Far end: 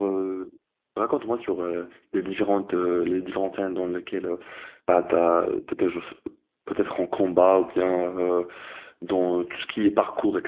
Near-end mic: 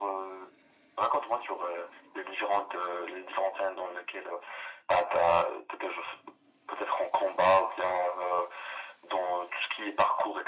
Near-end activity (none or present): none